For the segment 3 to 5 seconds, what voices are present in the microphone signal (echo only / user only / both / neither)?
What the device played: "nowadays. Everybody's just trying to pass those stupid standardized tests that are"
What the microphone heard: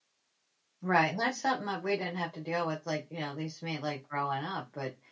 user only